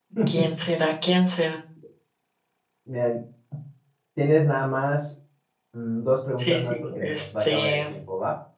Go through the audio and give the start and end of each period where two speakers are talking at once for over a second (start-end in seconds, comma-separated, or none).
6.4-7.9